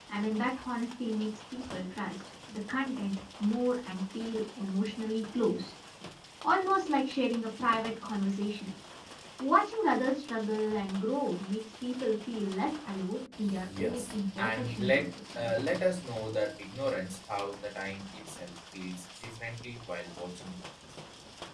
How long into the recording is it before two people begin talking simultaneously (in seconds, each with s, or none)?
13.4 s